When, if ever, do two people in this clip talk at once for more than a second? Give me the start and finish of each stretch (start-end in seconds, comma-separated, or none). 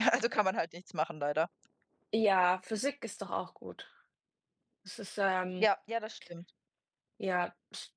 none